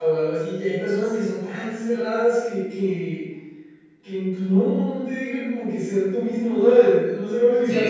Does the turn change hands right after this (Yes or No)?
Yes